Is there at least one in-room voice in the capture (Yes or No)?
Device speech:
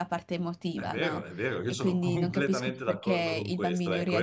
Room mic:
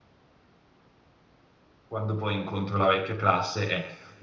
Yes